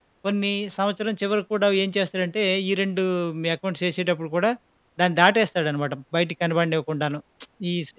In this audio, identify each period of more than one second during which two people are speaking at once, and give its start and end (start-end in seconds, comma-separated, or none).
none